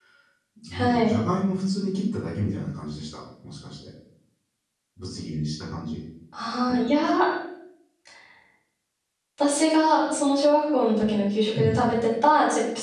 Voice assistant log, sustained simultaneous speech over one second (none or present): none